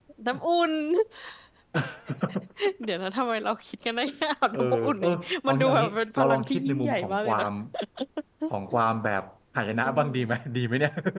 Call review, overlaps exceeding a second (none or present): present